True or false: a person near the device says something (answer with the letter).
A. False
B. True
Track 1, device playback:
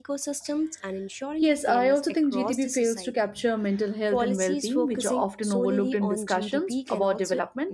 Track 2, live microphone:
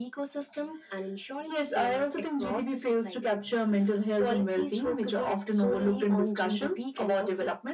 A